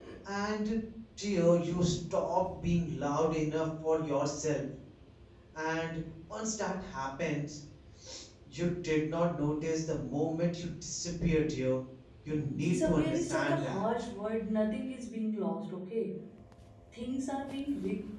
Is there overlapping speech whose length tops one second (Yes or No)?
Yes